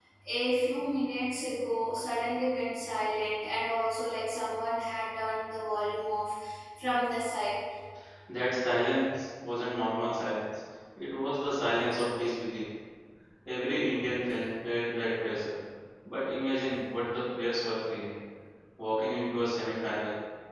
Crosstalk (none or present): none